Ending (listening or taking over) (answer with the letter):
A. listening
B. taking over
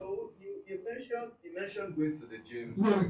B